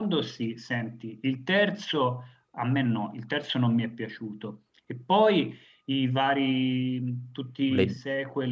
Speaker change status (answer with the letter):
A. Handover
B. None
B